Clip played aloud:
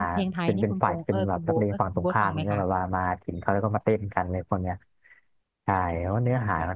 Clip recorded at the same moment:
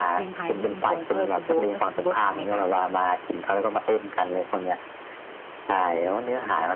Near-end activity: none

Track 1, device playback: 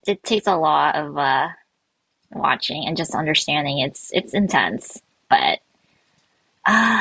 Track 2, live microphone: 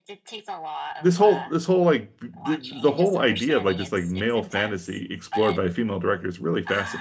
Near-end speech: present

